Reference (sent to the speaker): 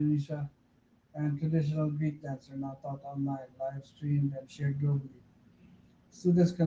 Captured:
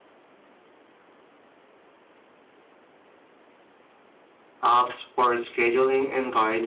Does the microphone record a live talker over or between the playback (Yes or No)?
Yes